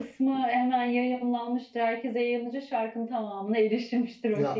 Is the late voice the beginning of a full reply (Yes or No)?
Yes